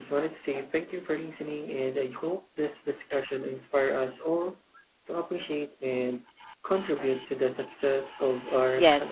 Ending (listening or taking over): taking over